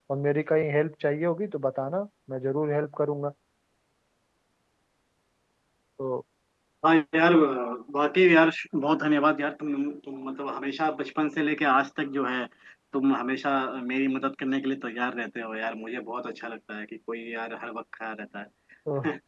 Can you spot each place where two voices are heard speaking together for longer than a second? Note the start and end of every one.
none

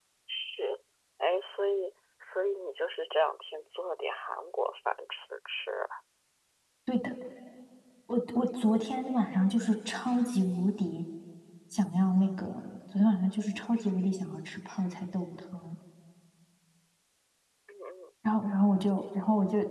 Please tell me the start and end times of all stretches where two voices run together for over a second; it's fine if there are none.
none

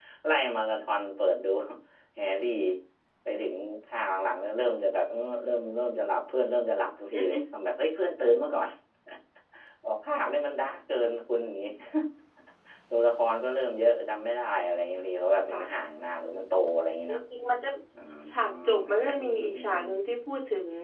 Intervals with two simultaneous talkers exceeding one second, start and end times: 18.3-19.8

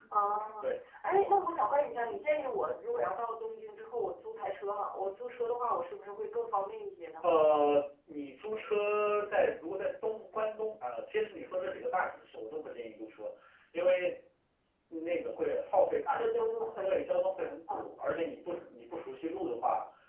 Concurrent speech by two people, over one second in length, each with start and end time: none

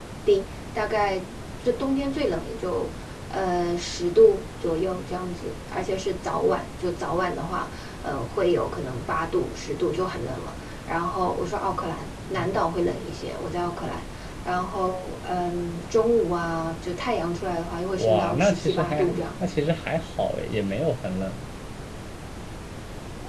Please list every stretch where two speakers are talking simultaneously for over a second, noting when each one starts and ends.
17.9-19.2

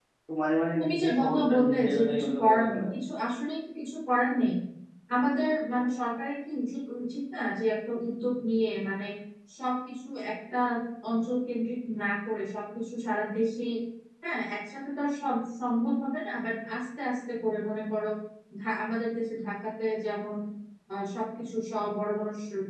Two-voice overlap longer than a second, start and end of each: 0.8-2.9

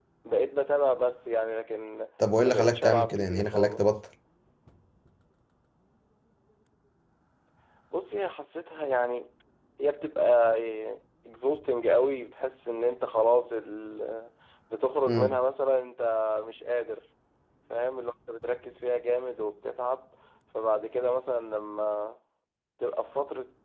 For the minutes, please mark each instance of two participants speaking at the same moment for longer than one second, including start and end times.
2.4-3.8

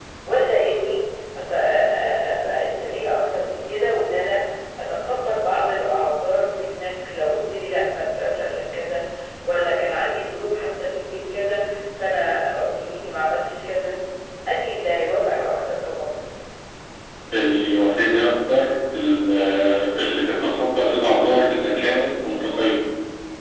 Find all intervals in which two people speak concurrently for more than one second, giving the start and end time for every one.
none

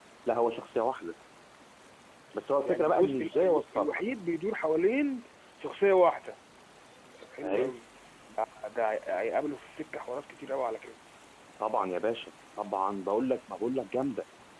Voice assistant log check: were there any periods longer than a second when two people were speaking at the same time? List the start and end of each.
2.6-4.0

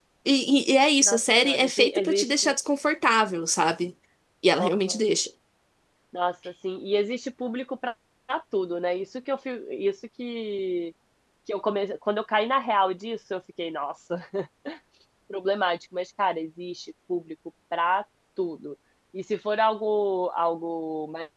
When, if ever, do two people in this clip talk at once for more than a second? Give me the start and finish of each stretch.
1.1-2.5

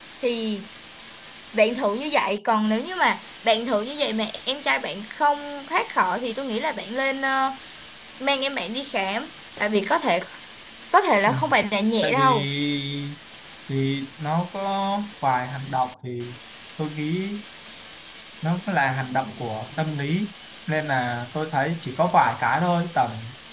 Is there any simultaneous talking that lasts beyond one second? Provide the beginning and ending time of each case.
none

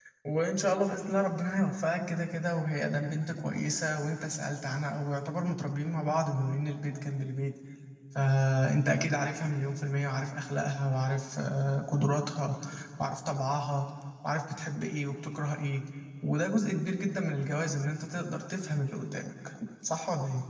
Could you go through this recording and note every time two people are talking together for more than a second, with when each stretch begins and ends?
none

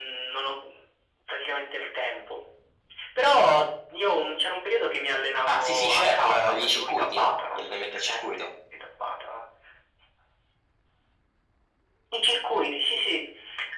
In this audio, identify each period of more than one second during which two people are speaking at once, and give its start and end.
5.5-8.5

